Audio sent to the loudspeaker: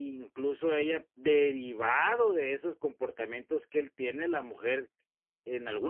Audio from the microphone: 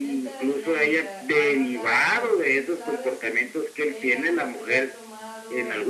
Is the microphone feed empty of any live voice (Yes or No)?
No